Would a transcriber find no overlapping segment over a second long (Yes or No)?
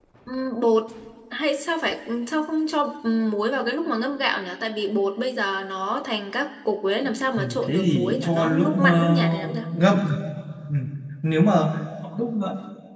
No